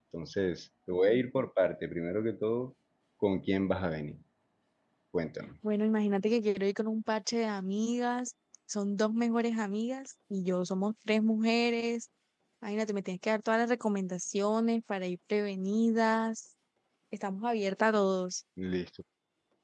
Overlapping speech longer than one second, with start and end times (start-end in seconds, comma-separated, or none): none